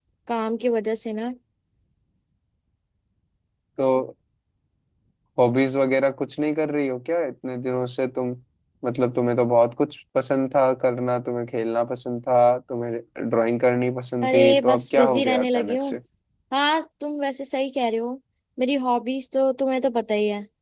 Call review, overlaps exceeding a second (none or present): present